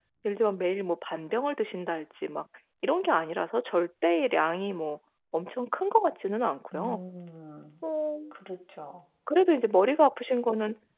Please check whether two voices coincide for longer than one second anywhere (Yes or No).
No